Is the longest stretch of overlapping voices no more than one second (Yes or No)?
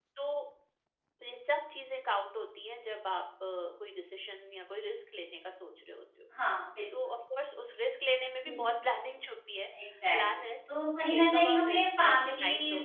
No